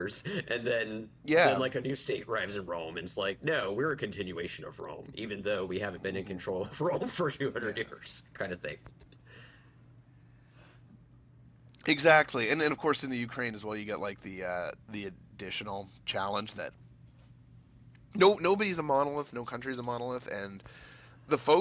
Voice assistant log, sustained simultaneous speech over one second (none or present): none